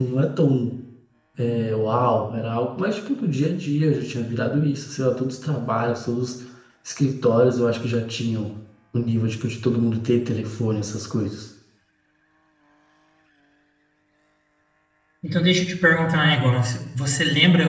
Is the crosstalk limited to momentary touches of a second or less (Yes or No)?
Yes